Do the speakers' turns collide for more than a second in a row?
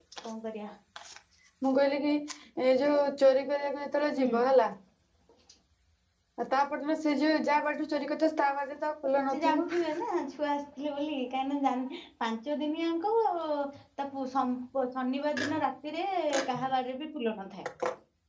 No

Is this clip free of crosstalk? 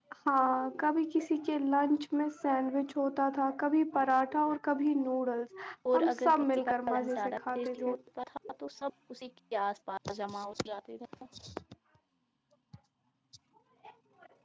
No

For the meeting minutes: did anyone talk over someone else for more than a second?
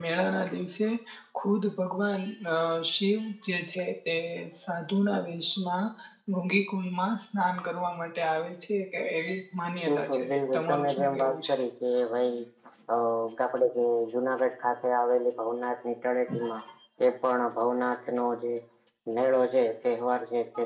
Yes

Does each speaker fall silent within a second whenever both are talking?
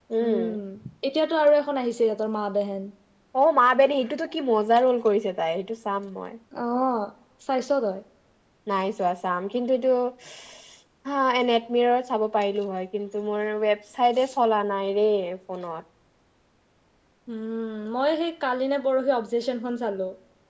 Yes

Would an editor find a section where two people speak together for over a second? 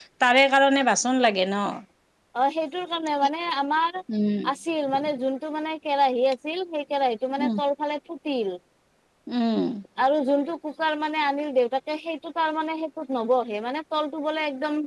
No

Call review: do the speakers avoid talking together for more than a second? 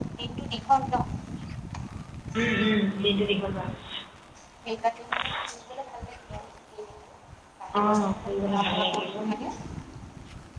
No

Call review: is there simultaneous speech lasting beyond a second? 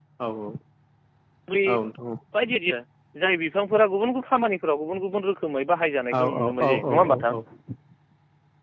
Yes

